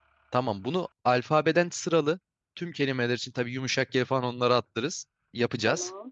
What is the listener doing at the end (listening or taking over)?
listening